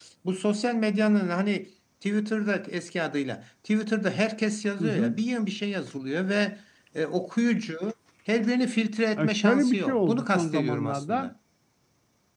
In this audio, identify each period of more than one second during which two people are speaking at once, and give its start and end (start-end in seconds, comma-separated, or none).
9.2-11.3